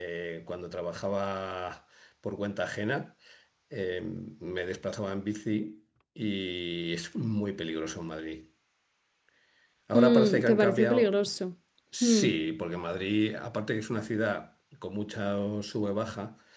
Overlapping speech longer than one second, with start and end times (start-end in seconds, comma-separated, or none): 9.9-11.2